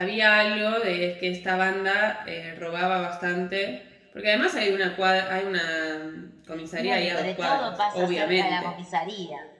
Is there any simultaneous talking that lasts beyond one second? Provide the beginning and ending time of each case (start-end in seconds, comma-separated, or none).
6.8-8.7